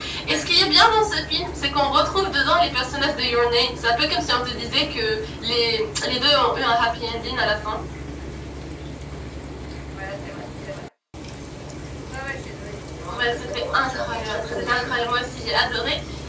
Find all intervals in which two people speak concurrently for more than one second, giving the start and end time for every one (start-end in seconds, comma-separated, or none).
13.1-15.0